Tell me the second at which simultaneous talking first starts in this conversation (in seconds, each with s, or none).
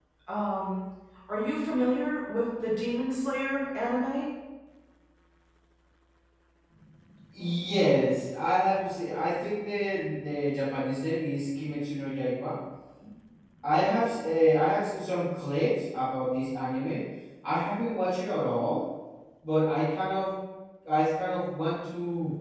none